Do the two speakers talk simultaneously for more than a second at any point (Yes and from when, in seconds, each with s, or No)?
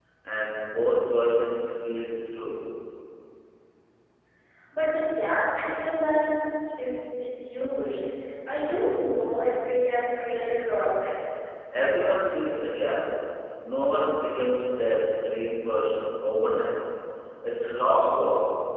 No